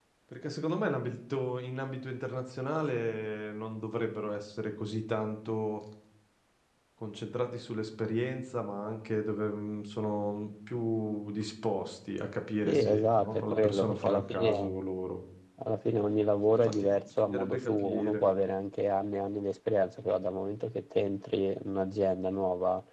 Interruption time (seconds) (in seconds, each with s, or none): 12.6 s